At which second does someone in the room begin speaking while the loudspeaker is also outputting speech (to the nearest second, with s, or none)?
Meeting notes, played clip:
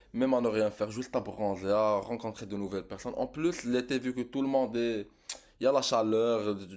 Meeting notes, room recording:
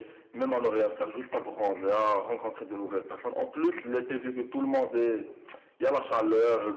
none